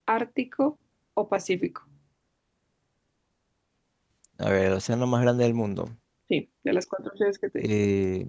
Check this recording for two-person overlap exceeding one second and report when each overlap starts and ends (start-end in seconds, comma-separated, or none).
none